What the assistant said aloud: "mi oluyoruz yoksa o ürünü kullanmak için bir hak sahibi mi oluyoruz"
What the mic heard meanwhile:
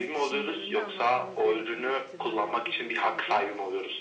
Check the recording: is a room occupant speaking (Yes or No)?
Yes